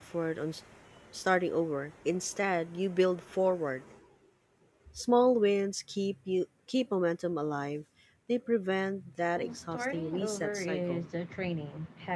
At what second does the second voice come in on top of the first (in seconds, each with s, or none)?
9.4 s